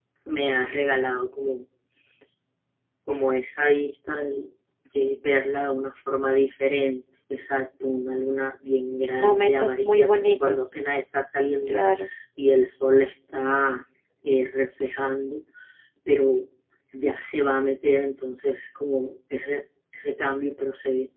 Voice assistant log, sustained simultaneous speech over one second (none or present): present